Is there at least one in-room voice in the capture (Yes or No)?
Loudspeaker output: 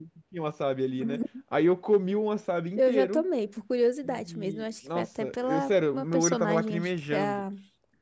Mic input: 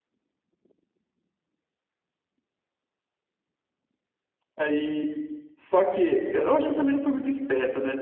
Yes